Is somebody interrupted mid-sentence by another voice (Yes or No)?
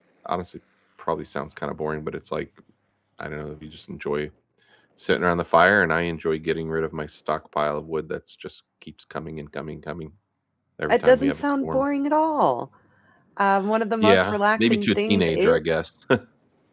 Yes